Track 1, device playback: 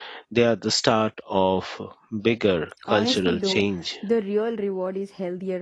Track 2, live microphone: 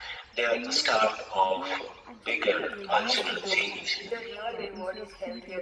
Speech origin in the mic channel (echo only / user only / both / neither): both